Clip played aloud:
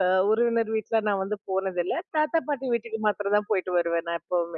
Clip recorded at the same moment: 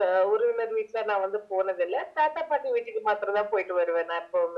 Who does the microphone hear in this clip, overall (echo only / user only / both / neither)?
echo only